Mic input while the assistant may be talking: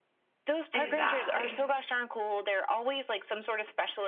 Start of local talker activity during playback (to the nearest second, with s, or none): 1 s